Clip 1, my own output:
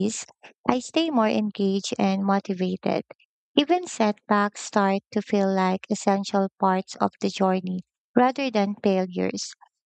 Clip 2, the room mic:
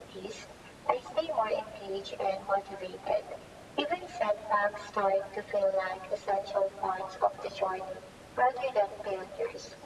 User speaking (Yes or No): No